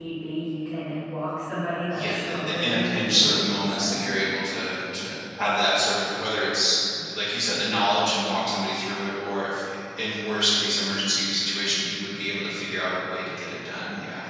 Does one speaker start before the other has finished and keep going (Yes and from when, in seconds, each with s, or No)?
Yes, from 1.9 s